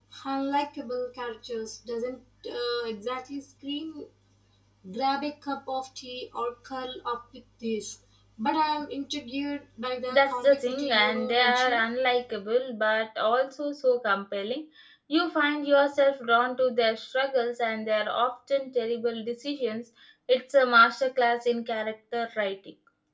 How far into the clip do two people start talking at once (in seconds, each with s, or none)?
10.1 s